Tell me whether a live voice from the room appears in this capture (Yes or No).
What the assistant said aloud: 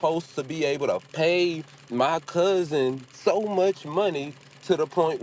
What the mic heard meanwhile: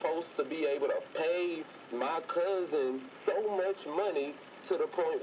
No